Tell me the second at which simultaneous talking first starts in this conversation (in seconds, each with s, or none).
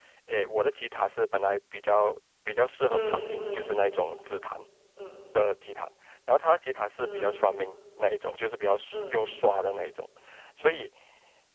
2.9 s